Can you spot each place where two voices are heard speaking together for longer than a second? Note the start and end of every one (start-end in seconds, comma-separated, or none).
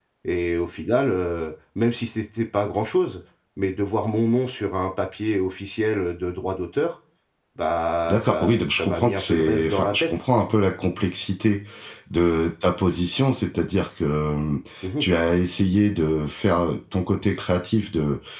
8.1-10.0